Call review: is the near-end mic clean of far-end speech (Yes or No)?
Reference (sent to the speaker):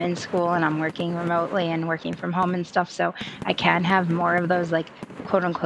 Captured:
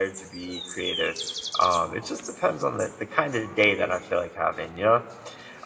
Yes